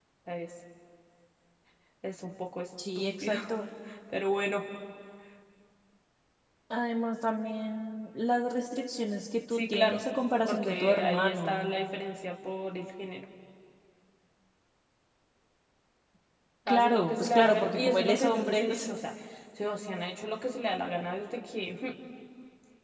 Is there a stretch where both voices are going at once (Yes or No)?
Yes